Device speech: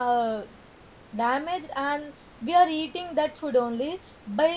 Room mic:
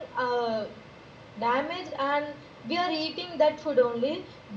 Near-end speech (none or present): none